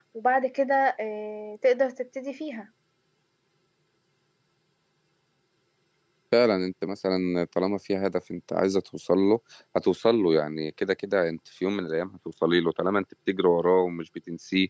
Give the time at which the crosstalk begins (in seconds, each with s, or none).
none